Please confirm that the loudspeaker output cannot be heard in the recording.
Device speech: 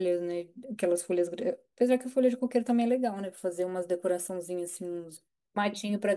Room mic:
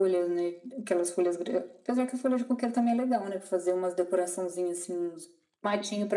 No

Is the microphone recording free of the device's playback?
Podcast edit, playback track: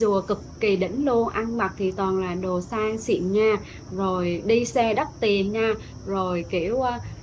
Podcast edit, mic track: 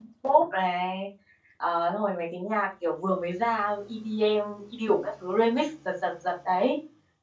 Yes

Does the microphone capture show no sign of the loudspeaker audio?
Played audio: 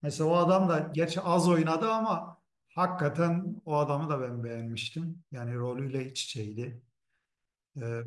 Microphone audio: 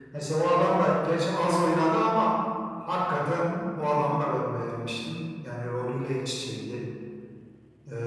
No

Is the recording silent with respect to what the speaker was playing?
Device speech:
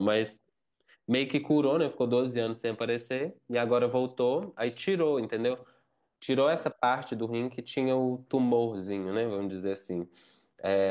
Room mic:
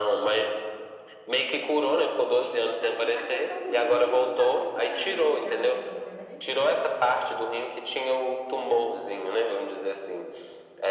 No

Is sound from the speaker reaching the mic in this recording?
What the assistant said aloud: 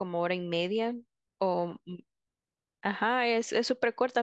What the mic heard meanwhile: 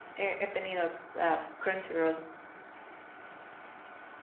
No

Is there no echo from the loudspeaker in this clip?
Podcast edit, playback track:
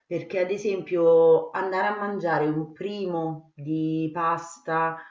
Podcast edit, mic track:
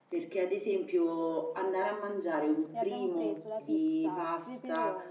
No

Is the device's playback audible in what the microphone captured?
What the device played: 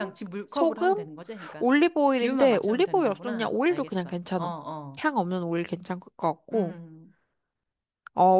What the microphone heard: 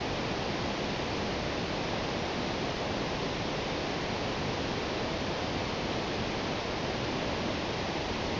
No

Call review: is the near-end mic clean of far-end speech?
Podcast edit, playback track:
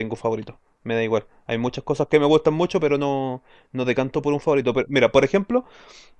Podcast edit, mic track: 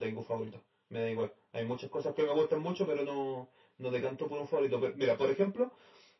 No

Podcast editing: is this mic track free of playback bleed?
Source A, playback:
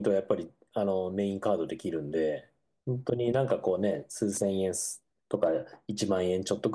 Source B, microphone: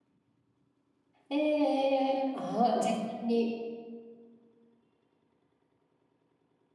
Yes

